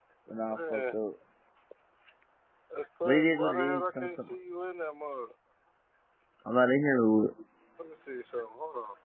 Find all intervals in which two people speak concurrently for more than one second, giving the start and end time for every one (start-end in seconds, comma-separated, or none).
3.0-4.3